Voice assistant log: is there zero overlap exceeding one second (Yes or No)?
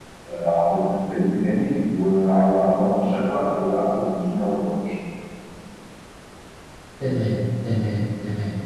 Yes